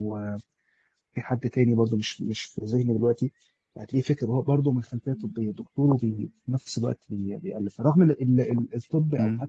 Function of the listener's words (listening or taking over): listening